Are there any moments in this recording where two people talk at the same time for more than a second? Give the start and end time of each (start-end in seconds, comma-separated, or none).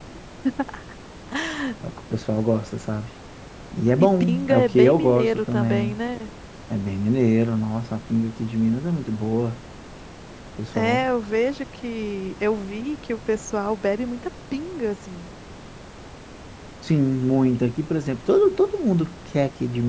4.0-6.0